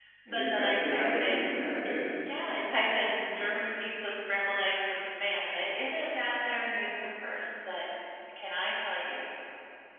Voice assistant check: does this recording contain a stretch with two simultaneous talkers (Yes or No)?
Yes